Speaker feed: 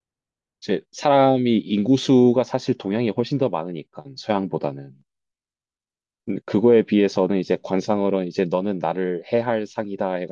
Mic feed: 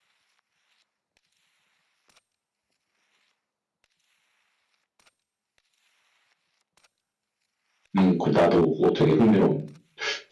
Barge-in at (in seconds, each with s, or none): 8.0 s